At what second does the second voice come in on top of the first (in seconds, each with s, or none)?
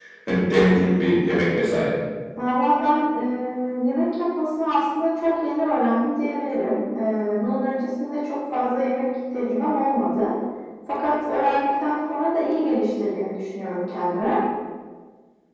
none